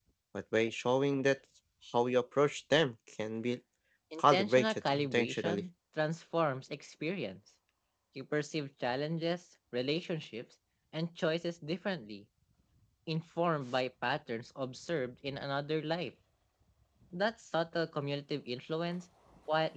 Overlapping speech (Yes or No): Yes